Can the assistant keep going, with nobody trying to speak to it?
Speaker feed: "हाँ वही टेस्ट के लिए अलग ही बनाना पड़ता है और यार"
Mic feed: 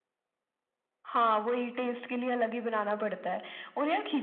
Yes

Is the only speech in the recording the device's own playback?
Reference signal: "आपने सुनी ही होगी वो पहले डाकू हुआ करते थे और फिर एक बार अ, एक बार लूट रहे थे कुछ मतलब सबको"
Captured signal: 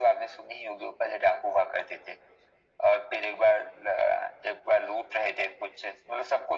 Yes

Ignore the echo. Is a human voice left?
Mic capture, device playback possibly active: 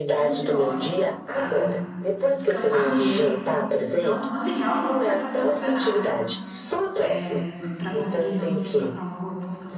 Yes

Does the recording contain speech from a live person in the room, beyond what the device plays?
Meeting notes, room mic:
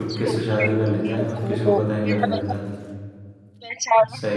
Yes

